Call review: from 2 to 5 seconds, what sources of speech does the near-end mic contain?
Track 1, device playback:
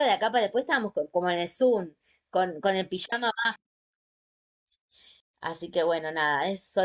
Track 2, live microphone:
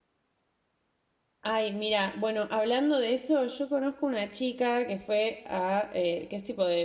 user only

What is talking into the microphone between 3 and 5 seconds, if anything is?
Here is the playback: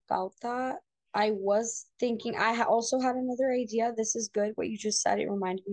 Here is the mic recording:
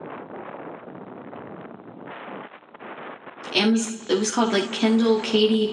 user only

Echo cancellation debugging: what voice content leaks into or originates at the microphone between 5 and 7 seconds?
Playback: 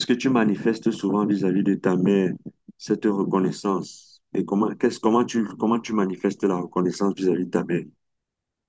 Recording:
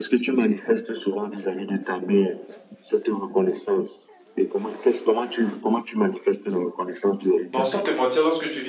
echo only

